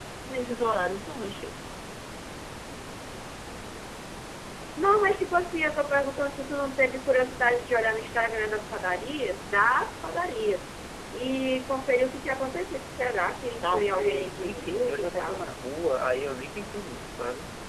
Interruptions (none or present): present